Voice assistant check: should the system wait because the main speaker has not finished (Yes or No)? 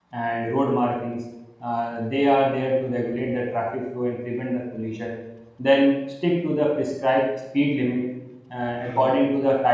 Yes